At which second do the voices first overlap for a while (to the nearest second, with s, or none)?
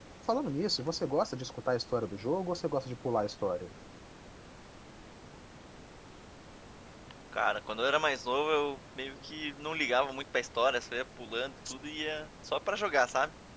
none